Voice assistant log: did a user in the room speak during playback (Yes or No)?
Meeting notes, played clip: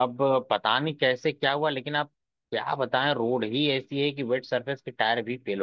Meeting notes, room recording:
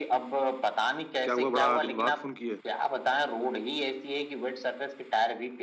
Yes